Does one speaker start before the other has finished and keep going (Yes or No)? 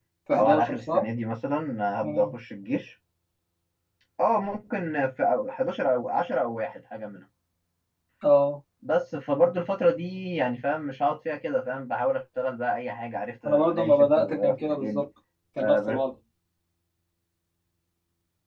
Yes